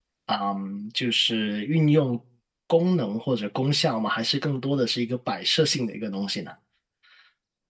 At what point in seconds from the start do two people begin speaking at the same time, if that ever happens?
none

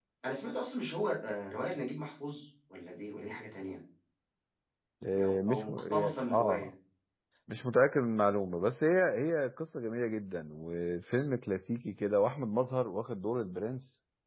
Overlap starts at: 5.2 s

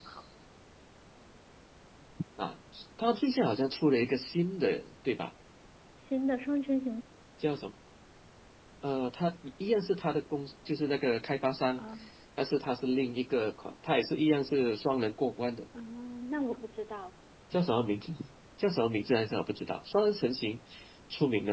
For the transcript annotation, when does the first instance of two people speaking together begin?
none

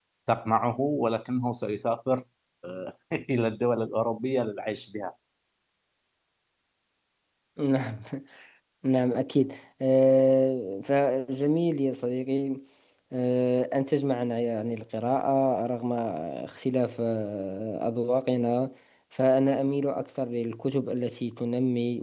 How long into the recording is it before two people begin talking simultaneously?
none

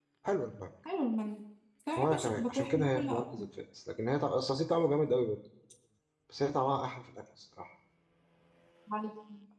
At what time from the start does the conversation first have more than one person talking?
2.0 s

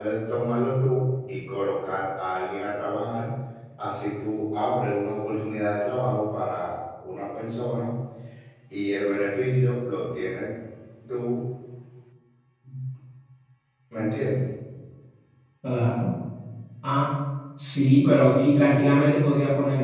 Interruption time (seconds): none

